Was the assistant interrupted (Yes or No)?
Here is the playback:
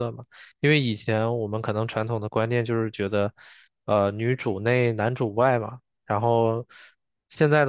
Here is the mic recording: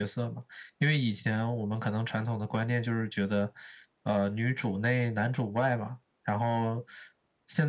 No